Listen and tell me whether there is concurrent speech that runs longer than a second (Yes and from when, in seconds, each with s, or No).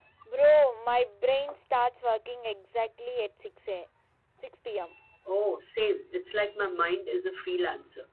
No